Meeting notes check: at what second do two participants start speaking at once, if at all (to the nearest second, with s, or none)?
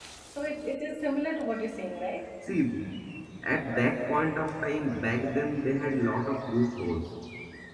none